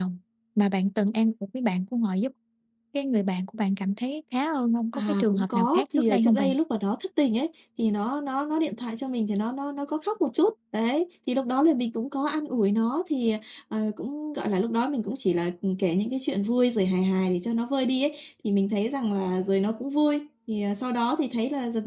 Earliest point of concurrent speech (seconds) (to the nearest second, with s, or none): 5 s